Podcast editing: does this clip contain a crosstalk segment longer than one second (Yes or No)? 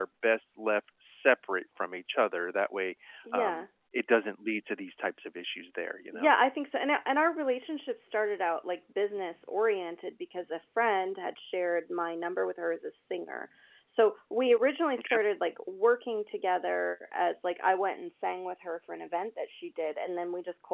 No